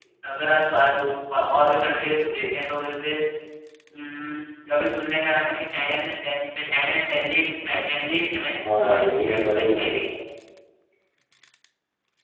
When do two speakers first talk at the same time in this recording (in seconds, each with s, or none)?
8.5 s